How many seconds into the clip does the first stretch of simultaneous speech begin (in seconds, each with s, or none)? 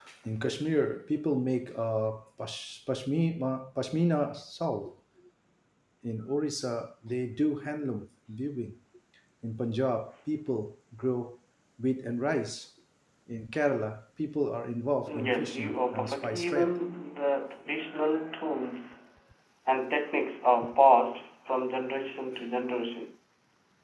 15.1 s